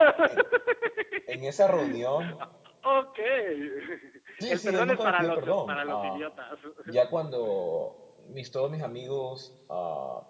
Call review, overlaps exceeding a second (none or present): present